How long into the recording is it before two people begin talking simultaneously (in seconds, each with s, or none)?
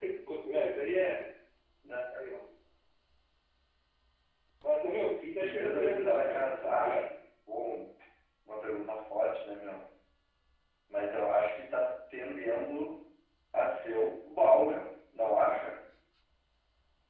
5.4 s